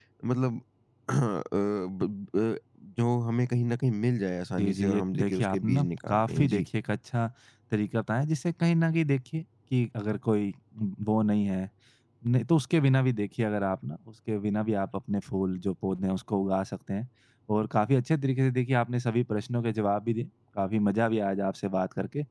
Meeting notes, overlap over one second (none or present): present